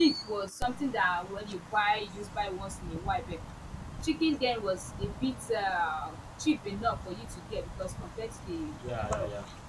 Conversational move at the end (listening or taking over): listening